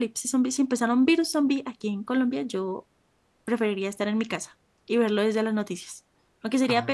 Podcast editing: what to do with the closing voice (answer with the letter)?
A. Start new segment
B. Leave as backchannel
B